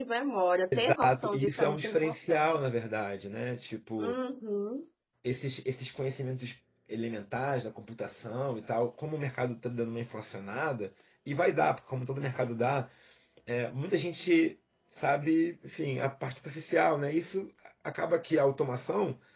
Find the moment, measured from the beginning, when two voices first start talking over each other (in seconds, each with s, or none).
0.8 s